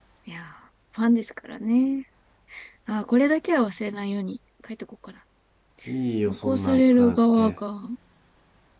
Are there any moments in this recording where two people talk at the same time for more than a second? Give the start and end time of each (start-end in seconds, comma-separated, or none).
6.3-7.5